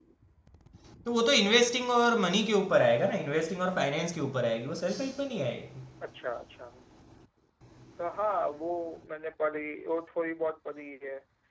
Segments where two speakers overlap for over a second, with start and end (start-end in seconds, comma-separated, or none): none